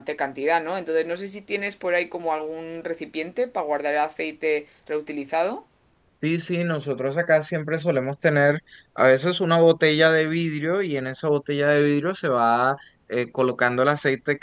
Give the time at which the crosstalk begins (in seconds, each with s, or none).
none